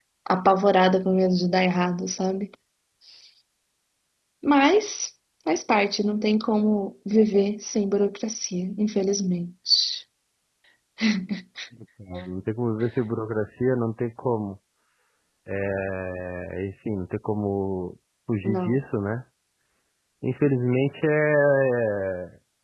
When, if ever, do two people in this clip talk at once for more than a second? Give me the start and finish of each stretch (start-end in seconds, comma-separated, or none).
none